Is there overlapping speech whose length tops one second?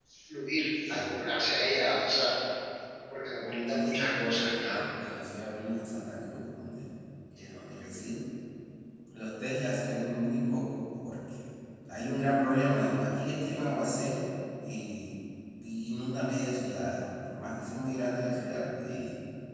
Yes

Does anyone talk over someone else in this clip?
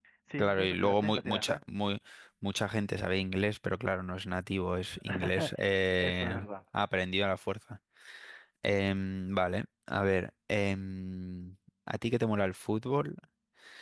Yes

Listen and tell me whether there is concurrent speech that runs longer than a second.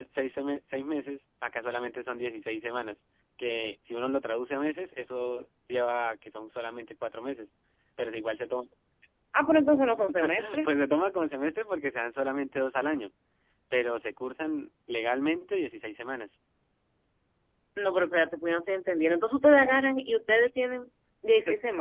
No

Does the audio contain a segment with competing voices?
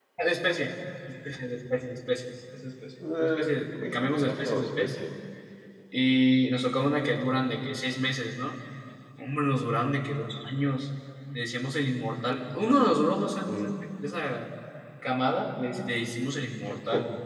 Yes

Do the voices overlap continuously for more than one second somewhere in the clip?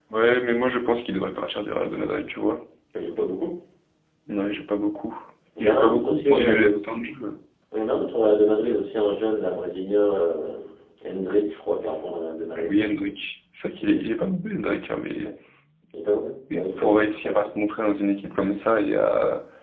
Yes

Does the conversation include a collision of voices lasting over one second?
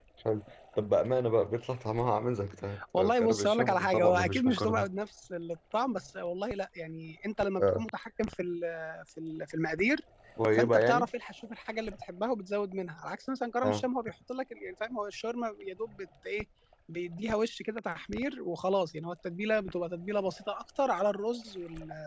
Yes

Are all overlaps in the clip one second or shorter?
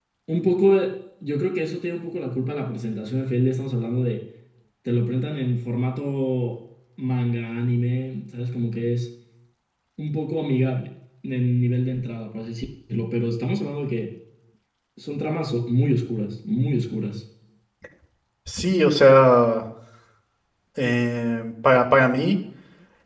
Yes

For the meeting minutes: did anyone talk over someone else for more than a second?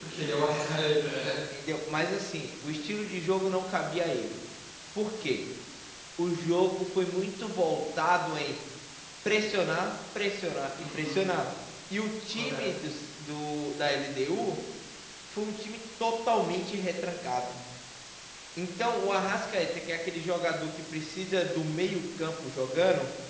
No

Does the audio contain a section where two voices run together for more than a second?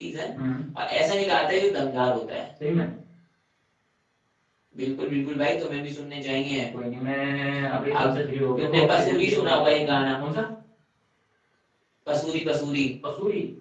Yes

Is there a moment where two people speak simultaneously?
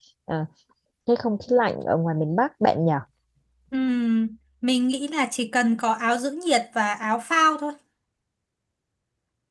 No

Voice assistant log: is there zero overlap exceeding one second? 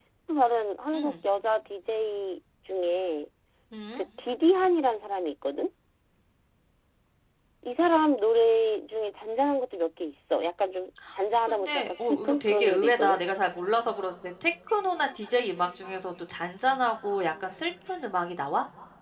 No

